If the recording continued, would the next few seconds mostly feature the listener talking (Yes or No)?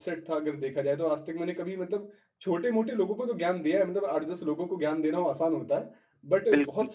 No